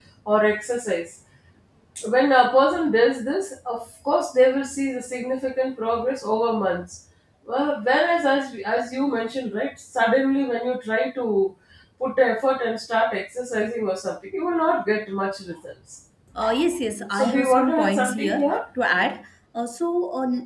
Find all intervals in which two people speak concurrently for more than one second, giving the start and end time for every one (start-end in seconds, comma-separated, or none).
17.1-18.6